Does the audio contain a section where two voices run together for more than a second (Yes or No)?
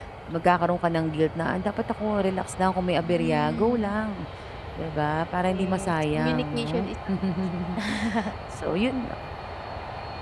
Yes